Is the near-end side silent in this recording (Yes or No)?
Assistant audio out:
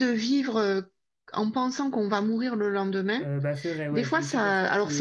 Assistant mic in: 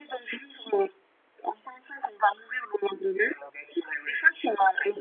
Yes